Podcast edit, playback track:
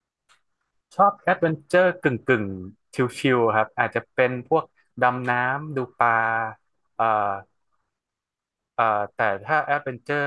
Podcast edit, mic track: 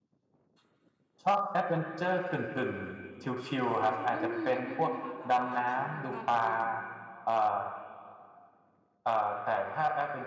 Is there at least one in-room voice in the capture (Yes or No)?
Yes